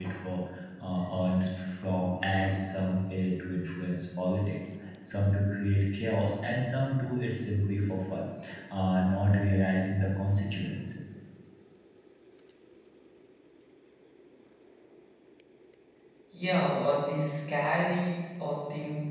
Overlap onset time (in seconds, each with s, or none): none